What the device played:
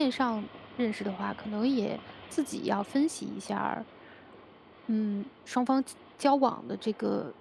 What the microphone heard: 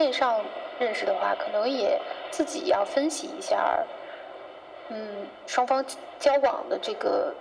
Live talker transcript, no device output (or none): none